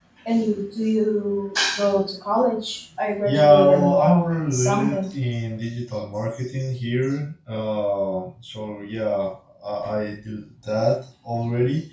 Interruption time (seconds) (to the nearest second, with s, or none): 3 s